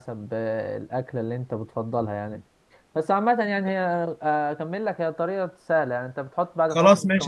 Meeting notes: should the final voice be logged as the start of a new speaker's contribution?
Yes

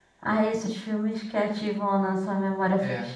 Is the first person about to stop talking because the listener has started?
Yes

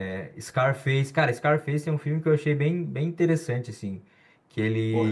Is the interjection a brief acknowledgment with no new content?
No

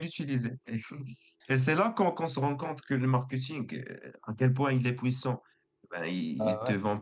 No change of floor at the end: Yes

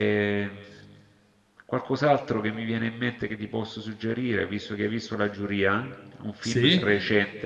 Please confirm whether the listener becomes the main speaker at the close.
No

